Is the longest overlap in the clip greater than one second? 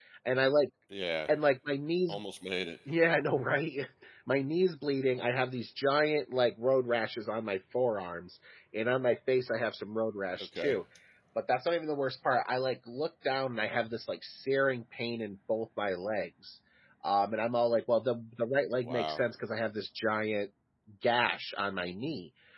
No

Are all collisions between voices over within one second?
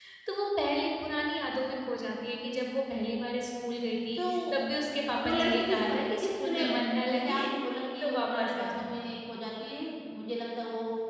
No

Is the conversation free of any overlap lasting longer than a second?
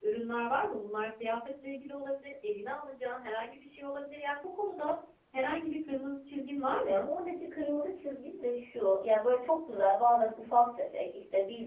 Yes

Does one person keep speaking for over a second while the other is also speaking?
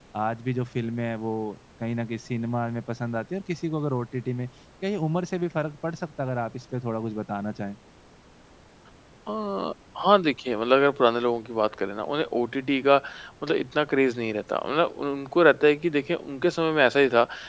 No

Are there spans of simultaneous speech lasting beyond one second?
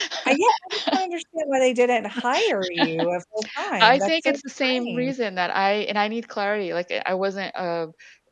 Yes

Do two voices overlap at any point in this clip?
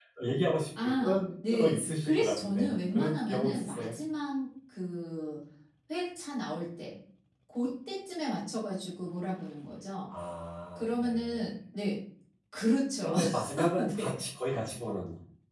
Yes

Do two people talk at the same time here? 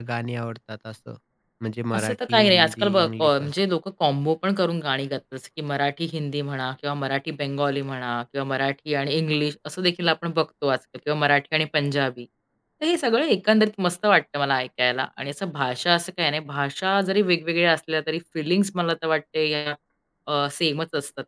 Yes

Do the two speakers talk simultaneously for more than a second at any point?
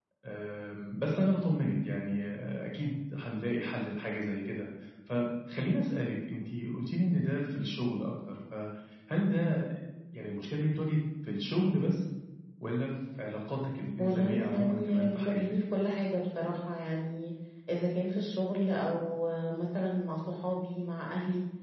Yes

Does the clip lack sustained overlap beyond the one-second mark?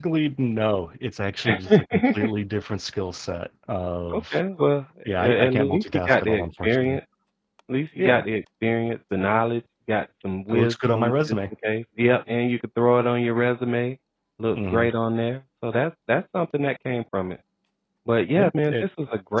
No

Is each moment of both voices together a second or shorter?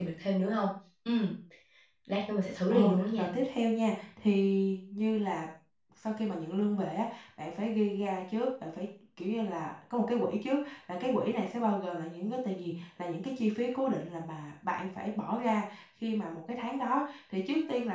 Yes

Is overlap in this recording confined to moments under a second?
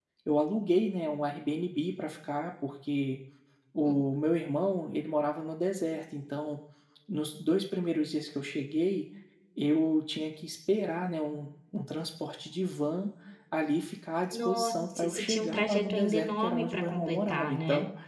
No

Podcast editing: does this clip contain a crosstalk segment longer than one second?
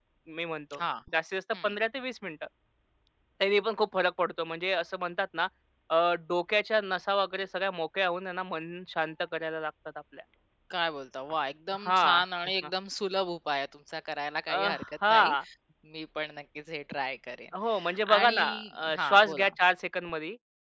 Yes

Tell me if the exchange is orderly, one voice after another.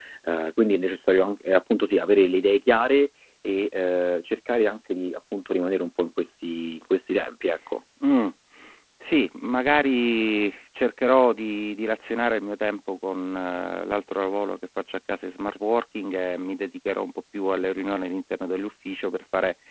Yes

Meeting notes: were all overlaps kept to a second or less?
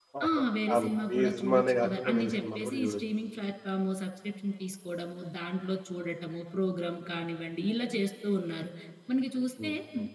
No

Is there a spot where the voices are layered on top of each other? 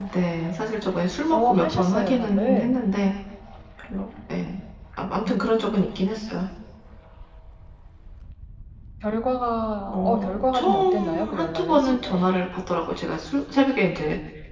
Yes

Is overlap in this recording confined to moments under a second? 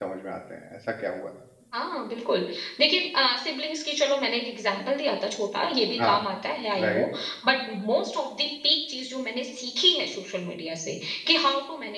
Yes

